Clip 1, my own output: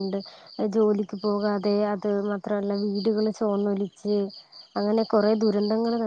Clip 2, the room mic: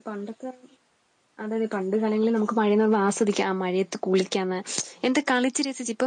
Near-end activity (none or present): present